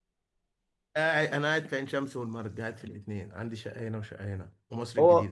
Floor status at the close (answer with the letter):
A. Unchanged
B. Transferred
B